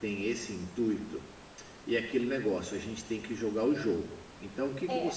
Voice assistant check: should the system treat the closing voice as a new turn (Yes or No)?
No